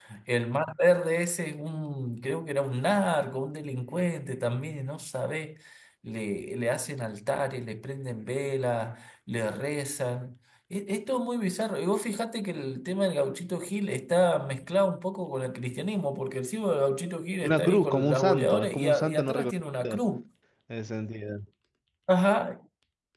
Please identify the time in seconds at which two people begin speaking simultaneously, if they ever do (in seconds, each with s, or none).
17.4 s